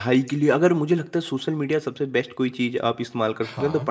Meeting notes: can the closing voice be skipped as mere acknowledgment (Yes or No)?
Yes